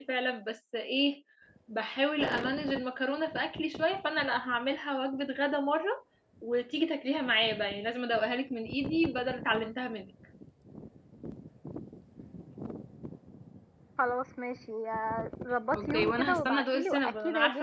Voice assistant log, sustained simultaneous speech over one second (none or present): present